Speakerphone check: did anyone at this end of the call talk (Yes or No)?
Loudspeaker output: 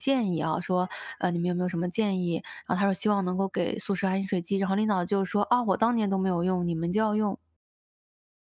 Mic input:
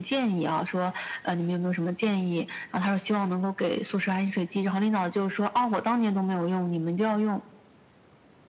No